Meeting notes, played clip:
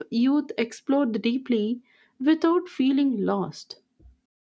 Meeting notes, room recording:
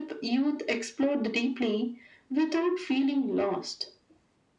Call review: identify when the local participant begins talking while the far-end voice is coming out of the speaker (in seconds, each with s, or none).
none